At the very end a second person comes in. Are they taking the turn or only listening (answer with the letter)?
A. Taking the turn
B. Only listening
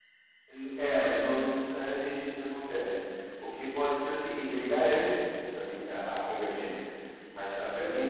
B